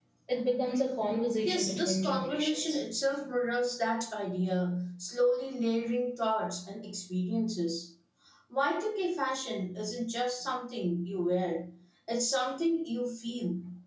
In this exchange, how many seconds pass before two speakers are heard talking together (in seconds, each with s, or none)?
1.4 s